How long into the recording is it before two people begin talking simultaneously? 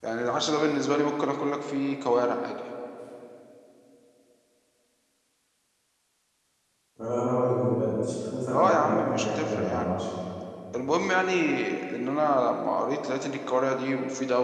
8.5 s

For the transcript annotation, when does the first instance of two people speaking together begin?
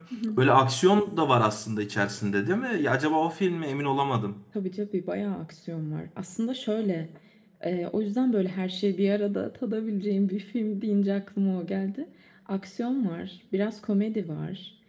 none

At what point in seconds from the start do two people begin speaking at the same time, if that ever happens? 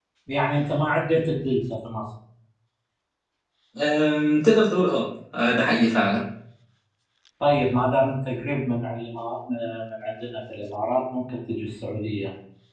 none

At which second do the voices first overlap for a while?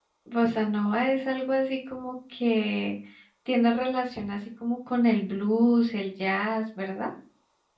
none

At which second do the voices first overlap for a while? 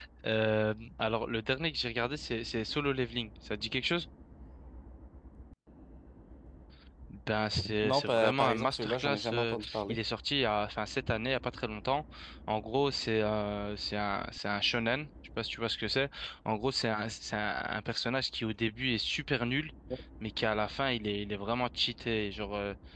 7.8 s

